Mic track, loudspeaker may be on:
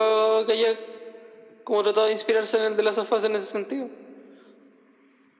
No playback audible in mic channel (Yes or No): No